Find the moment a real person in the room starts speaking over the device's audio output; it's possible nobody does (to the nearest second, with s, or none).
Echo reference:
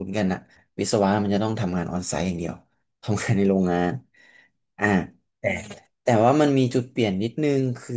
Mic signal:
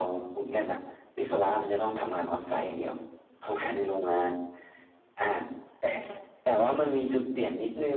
none